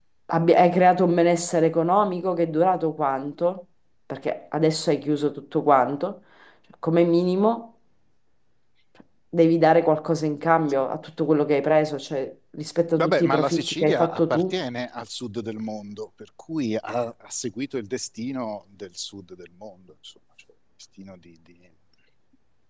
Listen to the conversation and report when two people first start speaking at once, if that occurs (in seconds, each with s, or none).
13.0 s